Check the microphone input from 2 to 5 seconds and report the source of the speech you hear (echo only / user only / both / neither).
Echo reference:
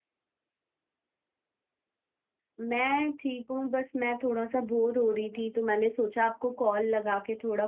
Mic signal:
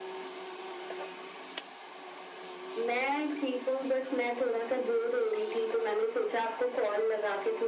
echo only